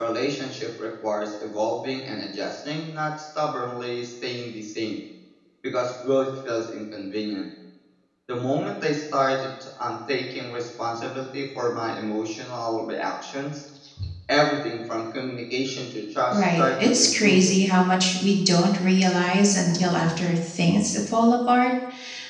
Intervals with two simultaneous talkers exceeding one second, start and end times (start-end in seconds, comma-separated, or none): 16.3-17.6